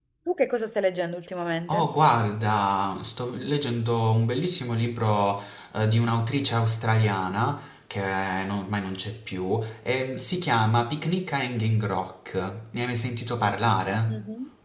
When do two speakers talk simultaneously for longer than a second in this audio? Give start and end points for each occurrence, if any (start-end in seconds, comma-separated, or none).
none